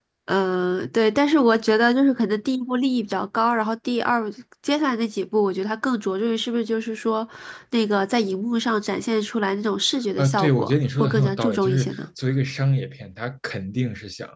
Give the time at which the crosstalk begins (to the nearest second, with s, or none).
10 s